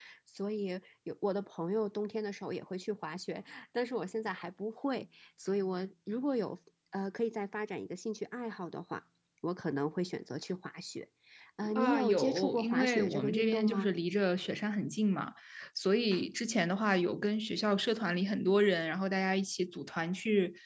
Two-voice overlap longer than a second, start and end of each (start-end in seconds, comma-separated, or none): 11.8-13.9